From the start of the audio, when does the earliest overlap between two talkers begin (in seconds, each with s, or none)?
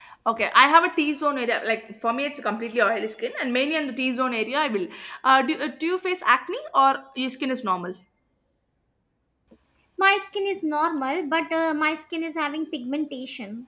none